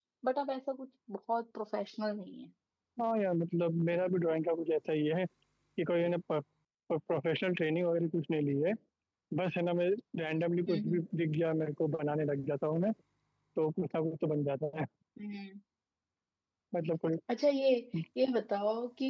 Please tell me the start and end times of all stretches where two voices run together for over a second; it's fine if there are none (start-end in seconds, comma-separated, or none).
none